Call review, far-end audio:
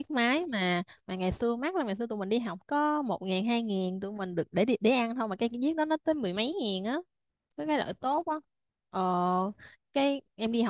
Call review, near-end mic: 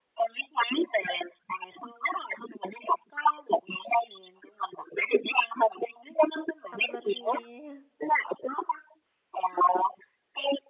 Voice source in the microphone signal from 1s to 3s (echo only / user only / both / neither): echo only